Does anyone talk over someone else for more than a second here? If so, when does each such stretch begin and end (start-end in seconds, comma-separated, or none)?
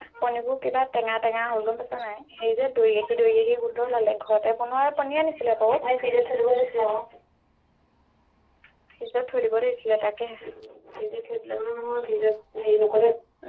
none